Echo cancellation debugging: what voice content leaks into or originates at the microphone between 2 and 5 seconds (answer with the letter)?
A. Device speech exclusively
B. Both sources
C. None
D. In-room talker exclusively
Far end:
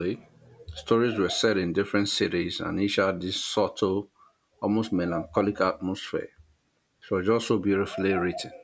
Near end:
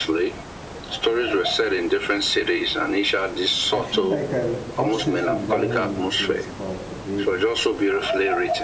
B